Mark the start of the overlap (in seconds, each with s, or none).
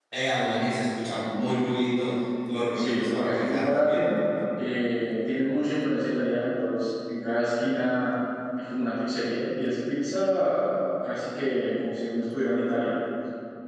2.8 s